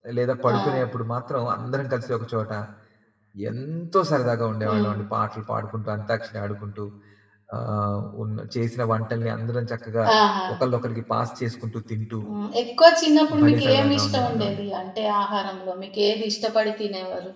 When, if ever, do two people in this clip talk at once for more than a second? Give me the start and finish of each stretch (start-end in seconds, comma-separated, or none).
13.4-14.6